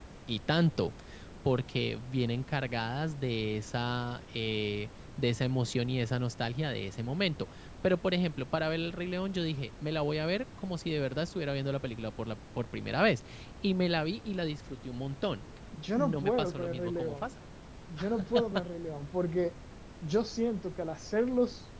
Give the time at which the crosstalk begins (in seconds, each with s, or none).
15.9 s